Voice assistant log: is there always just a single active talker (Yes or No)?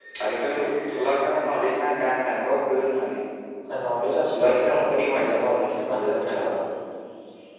No